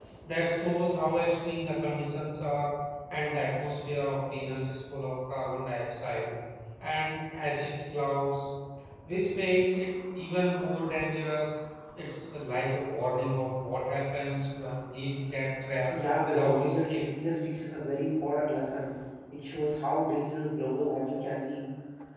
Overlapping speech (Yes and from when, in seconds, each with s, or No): Yes, from 15.9 s